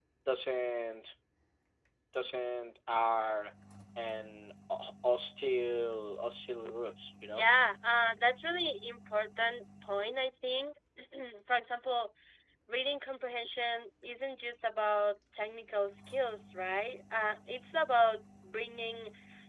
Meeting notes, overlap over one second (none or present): none